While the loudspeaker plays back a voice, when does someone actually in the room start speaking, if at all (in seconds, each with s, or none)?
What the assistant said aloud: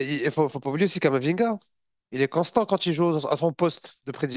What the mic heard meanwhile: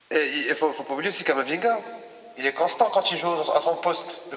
none